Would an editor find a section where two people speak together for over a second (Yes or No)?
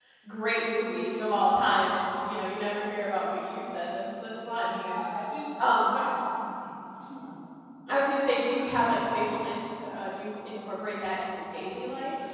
No